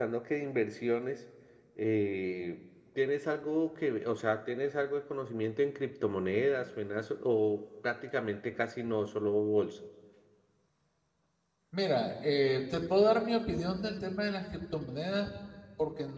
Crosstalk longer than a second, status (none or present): none